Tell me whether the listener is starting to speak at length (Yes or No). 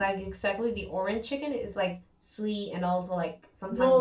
Yes